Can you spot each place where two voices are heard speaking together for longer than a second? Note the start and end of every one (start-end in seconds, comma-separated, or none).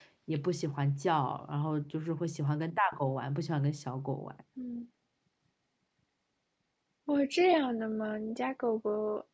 none